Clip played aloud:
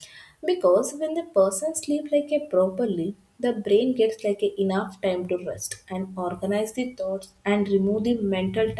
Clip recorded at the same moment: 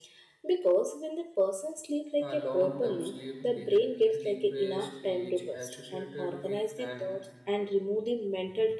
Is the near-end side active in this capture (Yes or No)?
Yes